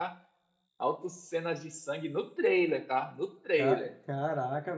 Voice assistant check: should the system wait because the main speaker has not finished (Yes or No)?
No